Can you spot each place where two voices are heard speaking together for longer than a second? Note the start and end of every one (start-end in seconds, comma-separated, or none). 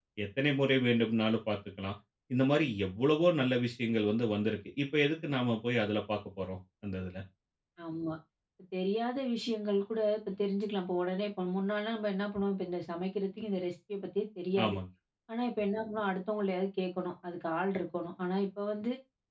none